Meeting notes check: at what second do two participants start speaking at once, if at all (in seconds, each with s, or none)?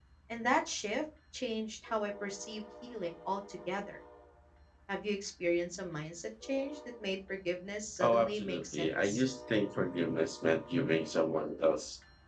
8.0 s